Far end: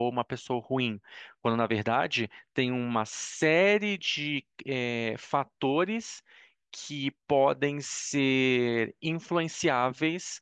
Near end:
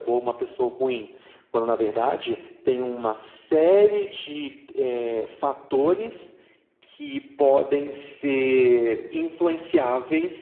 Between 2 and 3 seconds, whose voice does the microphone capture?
echo only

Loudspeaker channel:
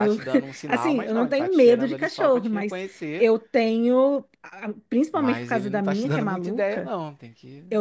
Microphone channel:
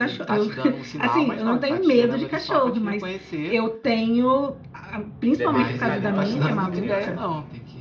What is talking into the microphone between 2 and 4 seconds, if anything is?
echo only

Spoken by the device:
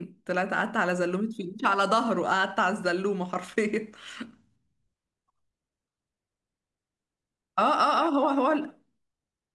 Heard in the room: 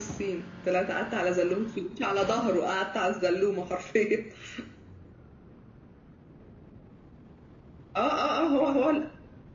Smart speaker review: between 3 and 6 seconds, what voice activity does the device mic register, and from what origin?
echo only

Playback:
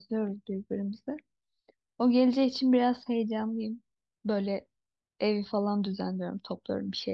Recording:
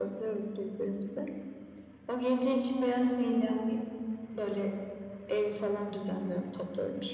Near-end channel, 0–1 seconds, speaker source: echo only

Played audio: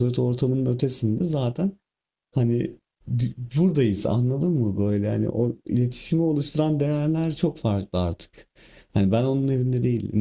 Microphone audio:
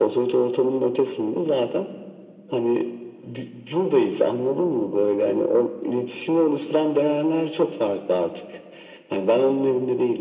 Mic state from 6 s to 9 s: echo only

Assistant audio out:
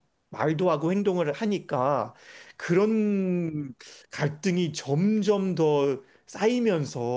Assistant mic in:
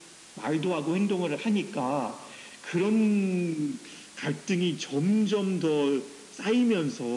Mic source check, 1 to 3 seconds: echo only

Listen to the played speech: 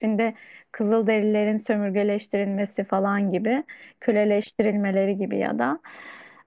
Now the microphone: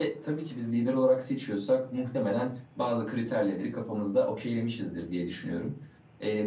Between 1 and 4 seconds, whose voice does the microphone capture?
user only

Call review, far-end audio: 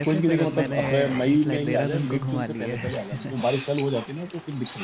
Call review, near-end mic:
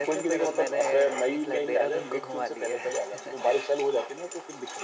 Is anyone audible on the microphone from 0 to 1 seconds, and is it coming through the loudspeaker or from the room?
echo only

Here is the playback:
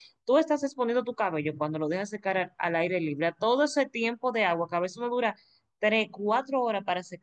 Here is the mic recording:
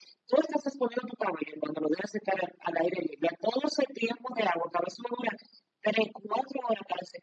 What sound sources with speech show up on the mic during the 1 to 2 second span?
echo only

